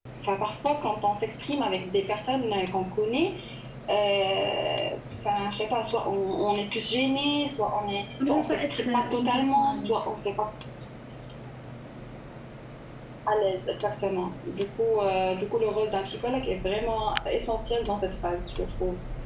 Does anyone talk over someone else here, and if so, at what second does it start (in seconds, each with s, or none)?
8.2 s